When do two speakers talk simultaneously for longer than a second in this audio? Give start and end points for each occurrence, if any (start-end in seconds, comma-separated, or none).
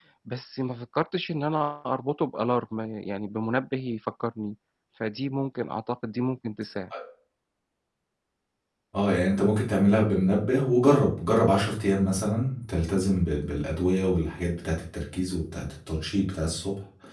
none